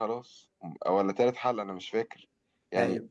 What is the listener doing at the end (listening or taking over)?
listening